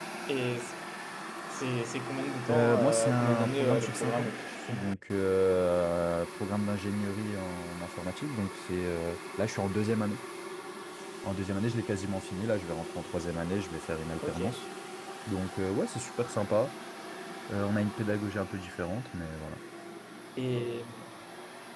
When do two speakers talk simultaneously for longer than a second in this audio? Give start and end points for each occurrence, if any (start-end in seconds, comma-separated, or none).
2.5-4.3